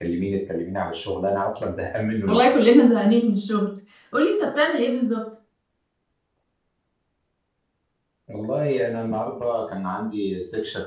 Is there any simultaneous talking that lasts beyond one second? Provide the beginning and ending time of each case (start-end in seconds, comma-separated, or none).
none